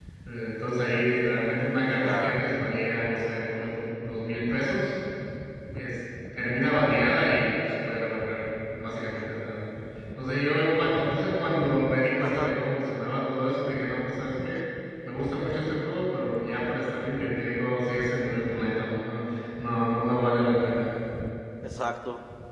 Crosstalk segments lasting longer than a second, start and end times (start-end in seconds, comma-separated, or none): none